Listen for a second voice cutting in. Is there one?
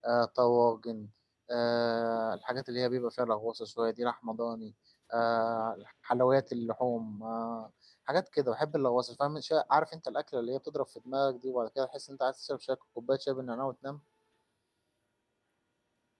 No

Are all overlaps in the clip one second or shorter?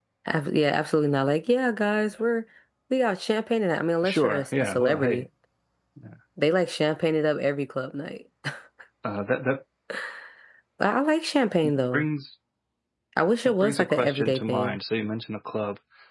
No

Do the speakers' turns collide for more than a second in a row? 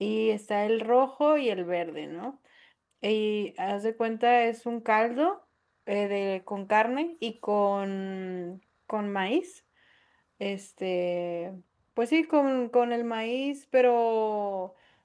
No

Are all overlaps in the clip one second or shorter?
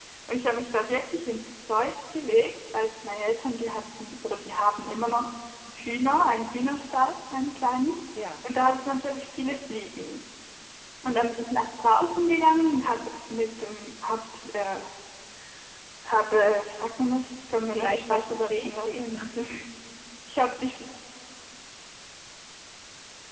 No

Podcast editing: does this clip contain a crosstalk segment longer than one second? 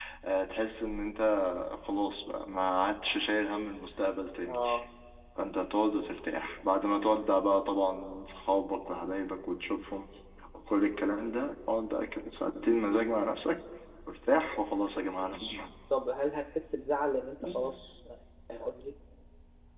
No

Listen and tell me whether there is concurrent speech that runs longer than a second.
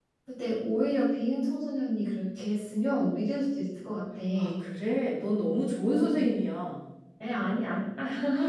No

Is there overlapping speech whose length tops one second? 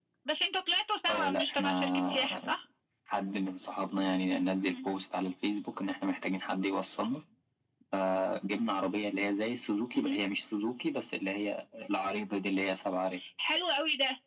Yes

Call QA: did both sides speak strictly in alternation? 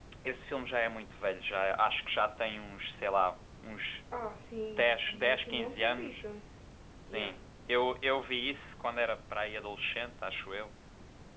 No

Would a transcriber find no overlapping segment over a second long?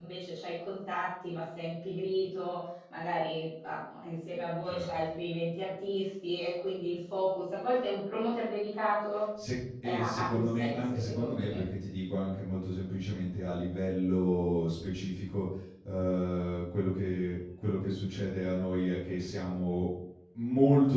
No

